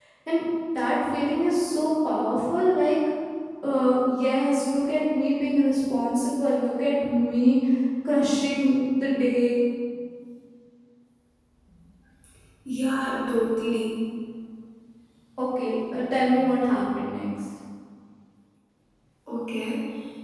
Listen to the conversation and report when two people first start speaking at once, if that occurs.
none

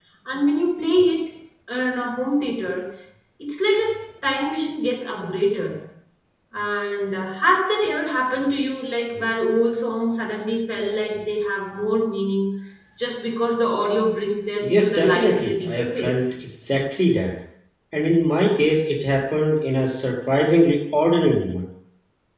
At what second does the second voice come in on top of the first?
14.6 s

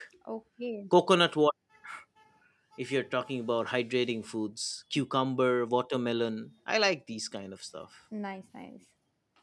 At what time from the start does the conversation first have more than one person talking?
none

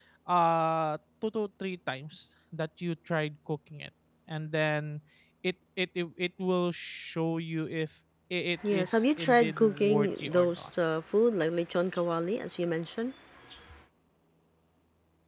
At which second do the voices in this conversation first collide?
8.6 s

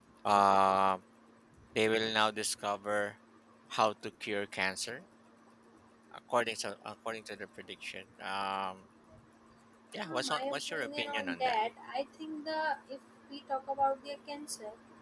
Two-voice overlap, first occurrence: 10.1 s

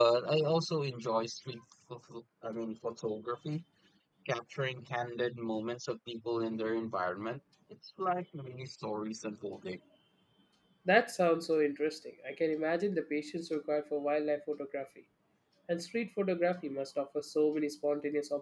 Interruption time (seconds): none

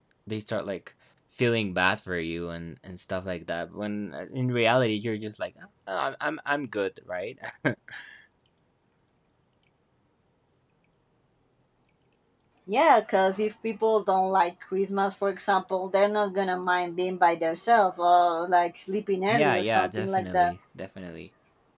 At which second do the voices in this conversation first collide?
19.3 s

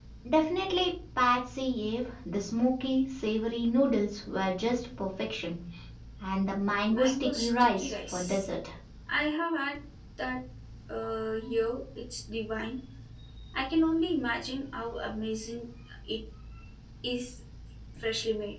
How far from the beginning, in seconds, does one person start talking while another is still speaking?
6.9 s

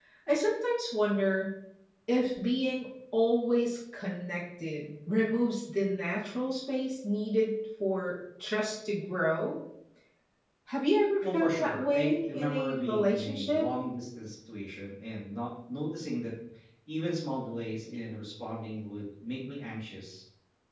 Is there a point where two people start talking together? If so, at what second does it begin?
11.2 s

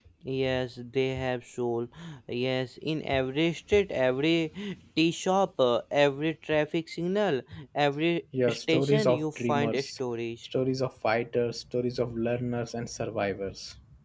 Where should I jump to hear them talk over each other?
8.3 s

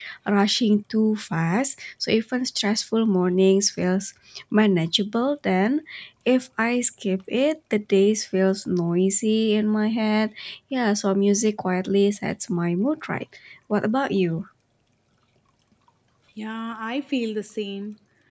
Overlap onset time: none

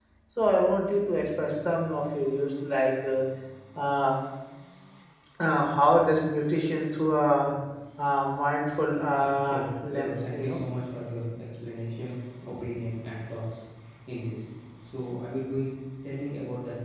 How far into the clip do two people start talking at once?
9.2 s

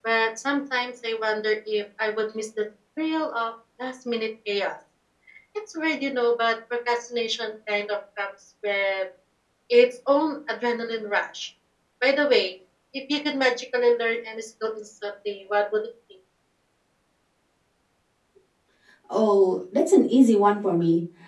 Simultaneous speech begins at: none

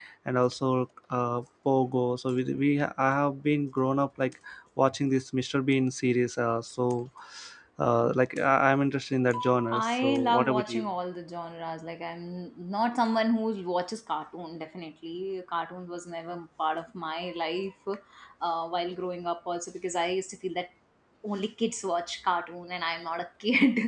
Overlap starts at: 9.7 s

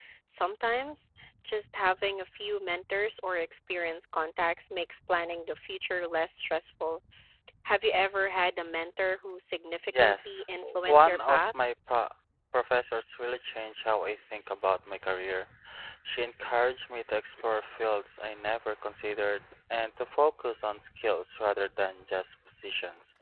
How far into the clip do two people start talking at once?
9.9 s

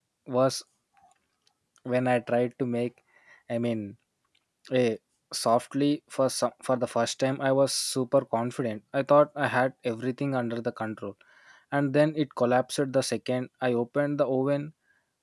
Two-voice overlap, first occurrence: none

